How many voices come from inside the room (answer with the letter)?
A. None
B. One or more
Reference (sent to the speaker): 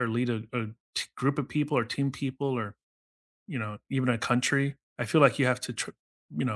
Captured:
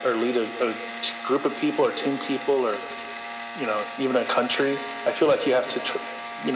A